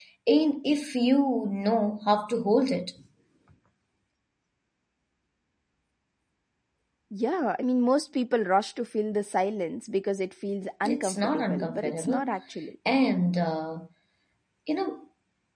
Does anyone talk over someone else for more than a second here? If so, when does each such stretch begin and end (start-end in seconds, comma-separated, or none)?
10.8-12.3